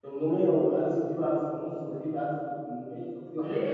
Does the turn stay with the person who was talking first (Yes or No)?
No